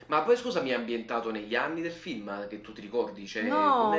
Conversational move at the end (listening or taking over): taking over